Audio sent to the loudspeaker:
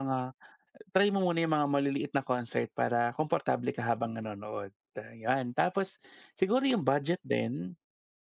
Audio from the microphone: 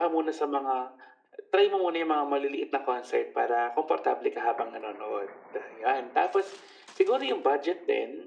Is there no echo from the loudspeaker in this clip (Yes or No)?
No